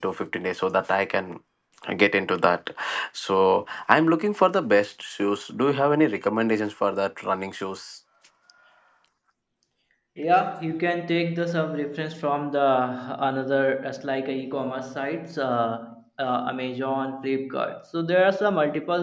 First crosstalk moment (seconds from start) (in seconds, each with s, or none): none